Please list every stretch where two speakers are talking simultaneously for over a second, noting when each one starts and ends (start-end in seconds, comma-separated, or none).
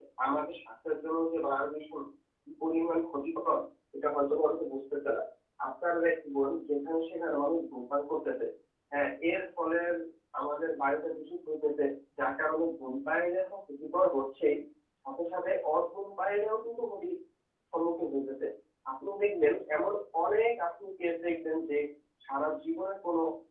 none